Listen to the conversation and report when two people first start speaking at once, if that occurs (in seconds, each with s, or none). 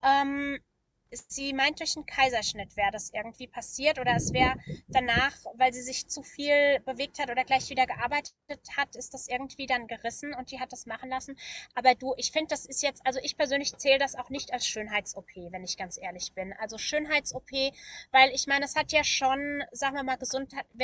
none